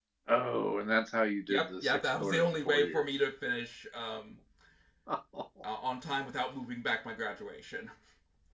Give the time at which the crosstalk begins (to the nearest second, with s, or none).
2 s